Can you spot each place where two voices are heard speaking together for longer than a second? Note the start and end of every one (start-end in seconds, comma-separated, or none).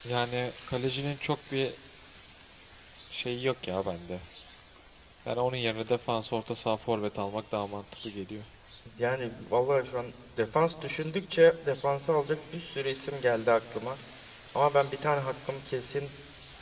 none